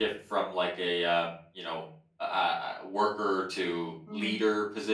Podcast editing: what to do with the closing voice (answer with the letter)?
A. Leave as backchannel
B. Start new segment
B